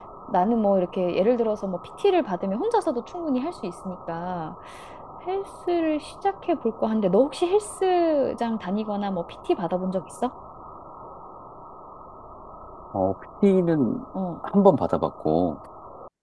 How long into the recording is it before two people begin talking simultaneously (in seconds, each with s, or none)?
none